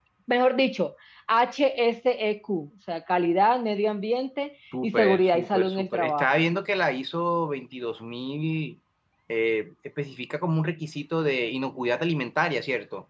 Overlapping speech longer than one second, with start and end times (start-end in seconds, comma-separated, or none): 4.8-6.3